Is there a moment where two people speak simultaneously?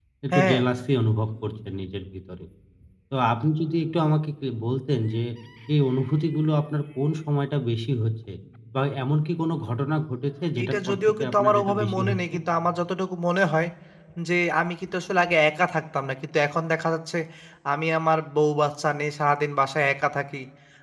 Yes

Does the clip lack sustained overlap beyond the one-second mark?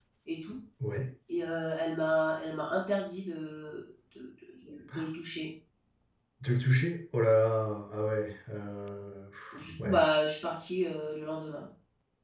Yes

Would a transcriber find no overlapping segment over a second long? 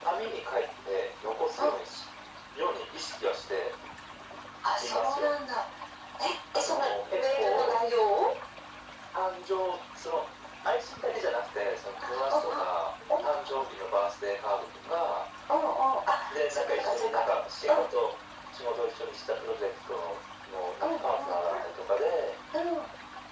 No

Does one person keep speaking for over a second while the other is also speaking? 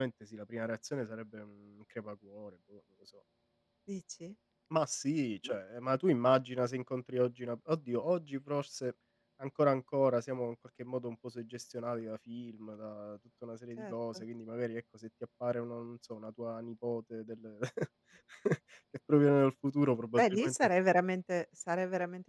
No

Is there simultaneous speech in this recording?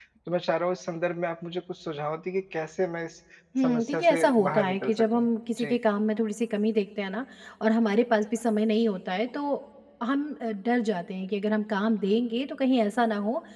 Yes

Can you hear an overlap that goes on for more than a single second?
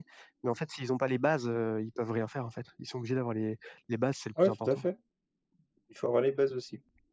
No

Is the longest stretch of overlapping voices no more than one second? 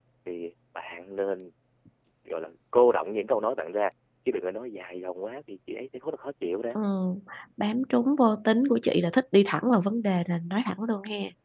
Yes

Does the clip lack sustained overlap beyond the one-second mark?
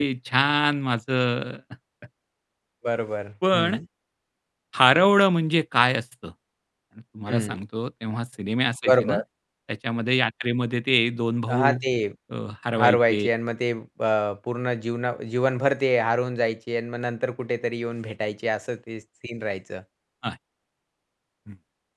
Yes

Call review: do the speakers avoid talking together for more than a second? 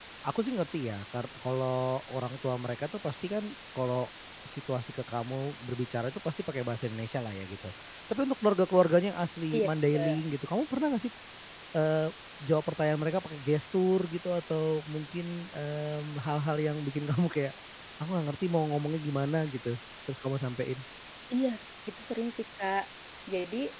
Yes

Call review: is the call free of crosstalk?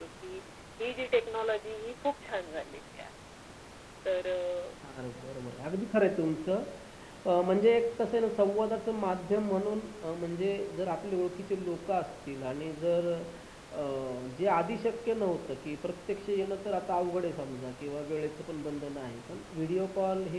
Yes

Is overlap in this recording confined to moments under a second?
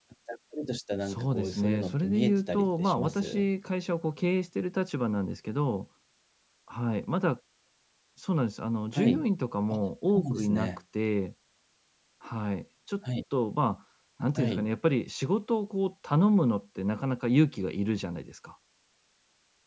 No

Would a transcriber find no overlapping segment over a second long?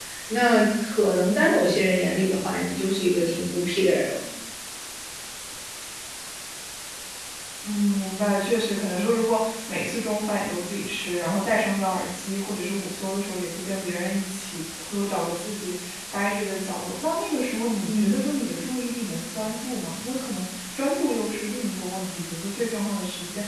Yes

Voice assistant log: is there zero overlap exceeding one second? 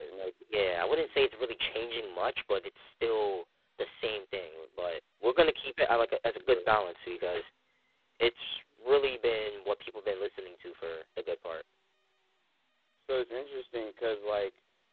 Yes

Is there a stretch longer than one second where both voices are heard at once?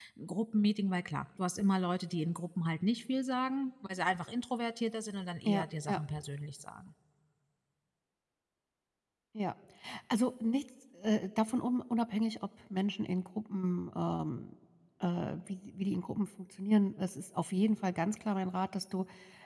No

